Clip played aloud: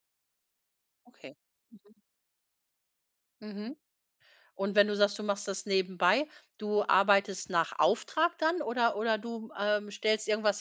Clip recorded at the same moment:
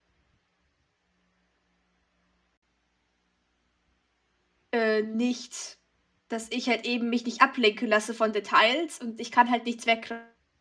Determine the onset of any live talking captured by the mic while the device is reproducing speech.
4.7 s

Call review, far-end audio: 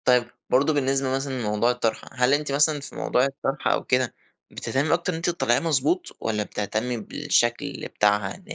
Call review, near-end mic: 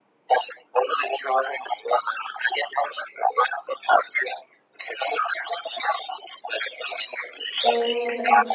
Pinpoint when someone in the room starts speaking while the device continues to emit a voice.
7.6 s

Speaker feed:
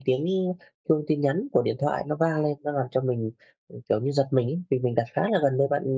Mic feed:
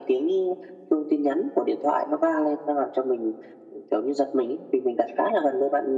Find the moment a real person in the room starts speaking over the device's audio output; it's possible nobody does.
none

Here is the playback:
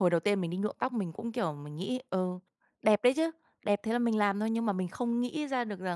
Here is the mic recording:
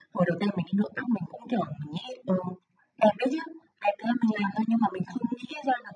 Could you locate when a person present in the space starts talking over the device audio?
none

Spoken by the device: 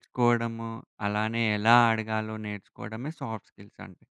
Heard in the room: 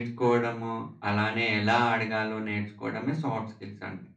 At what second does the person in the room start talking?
none

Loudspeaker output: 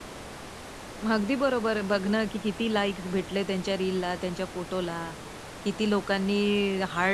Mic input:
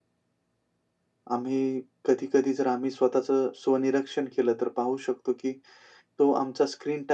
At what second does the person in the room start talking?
1.3 s

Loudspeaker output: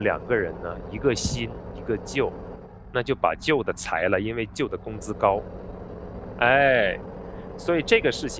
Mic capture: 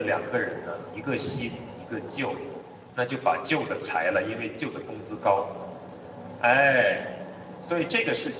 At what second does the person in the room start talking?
none

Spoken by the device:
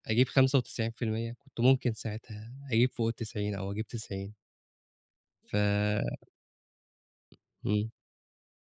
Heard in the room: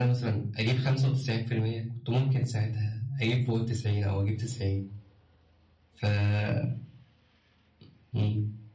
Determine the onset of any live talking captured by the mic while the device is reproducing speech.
none

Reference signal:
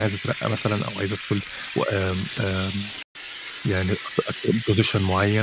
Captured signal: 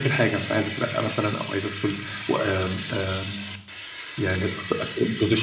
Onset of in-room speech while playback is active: none

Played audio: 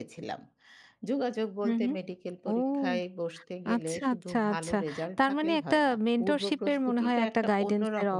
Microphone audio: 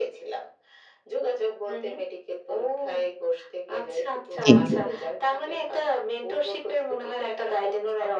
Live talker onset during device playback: 4.4 s

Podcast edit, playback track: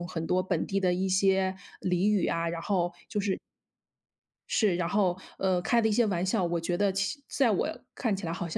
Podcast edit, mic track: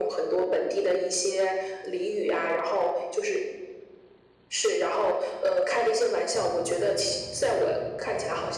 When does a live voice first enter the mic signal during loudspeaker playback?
none

